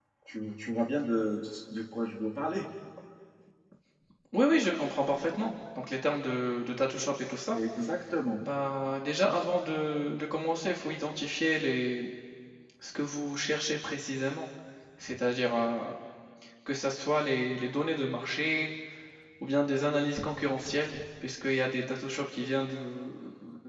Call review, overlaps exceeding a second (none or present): none